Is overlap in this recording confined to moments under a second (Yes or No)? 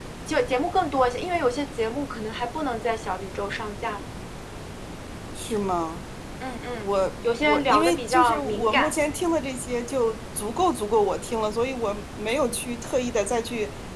No